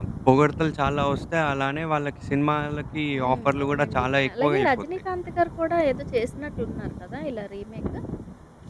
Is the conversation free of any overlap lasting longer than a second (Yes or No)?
No